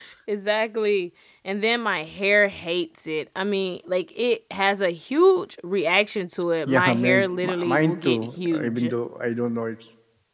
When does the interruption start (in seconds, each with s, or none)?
6.7 s